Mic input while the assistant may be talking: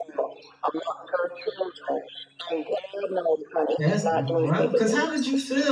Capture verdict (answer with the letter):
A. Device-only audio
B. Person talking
B